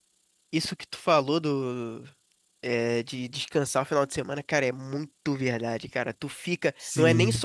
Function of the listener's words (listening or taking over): listening